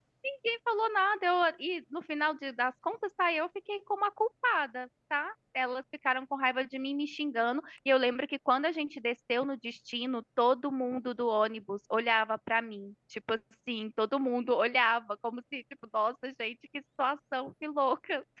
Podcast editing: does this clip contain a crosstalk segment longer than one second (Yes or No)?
No